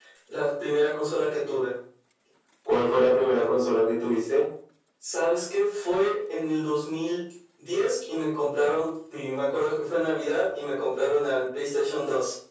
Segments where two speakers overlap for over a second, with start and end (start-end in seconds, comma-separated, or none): none